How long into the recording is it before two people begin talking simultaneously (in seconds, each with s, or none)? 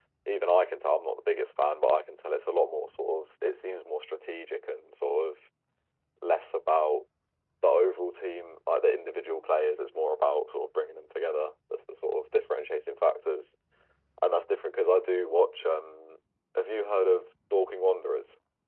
none